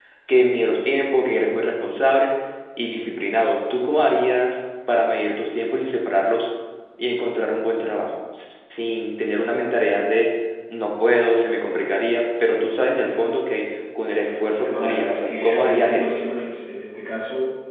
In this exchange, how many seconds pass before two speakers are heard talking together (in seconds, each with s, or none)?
14.5 s